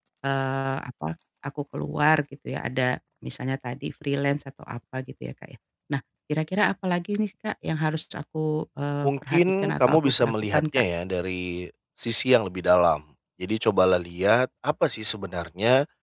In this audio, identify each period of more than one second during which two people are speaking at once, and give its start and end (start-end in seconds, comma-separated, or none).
9.0-10.8